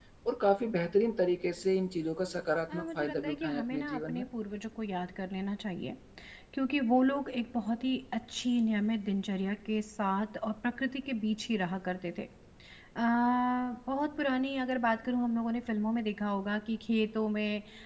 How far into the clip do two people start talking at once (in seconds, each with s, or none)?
2.7 s